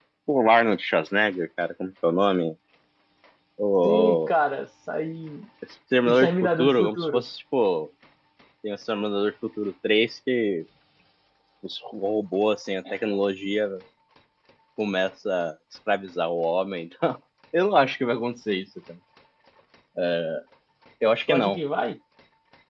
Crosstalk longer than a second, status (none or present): present